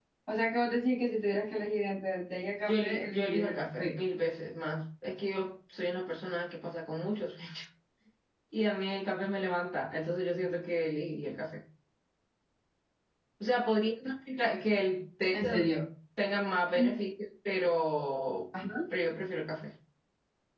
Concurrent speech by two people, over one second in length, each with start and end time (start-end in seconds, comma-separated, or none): 2.7-3.9